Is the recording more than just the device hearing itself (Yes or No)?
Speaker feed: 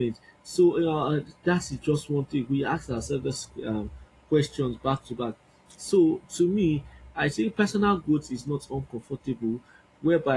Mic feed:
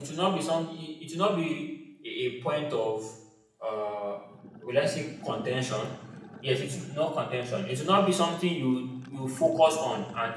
Yes